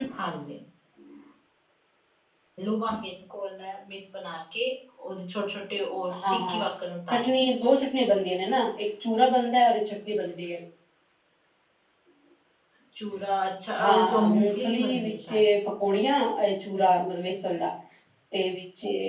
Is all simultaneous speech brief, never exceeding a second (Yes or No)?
No